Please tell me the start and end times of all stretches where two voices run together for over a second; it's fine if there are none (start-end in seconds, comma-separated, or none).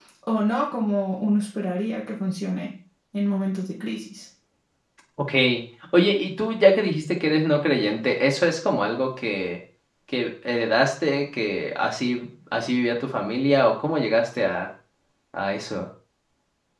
none